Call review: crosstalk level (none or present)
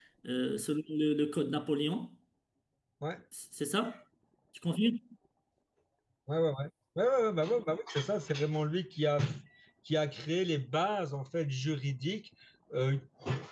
none